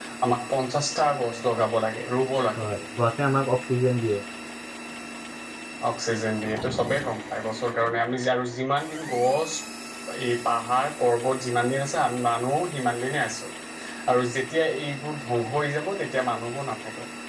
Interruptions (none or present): none